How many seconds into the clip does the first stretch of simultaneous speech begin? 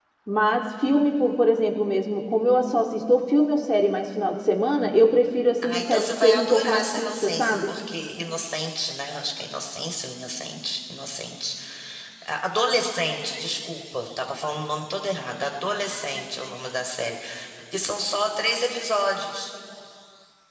5.6 s

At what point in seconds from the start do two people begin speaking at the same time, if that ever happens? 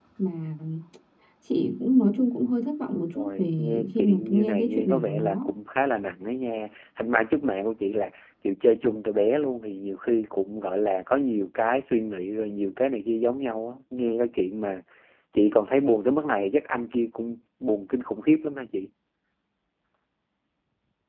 3.1 s

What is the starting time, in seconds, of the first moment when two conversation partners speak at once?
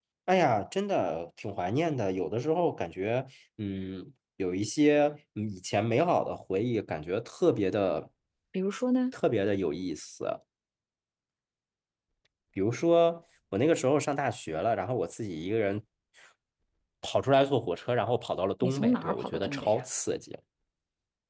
18.6 s

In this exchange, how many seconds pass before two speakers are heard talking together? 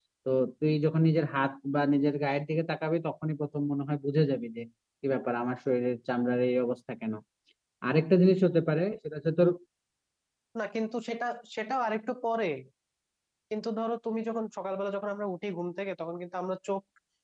none

